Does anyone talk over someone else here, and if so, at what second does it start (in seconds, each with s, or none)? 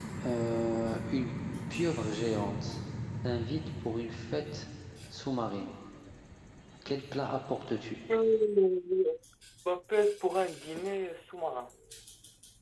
none